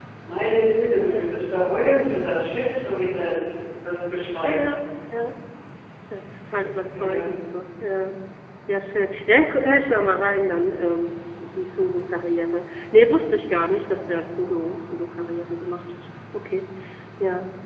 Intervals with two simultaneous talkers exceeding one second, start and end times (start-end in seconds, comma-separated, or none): none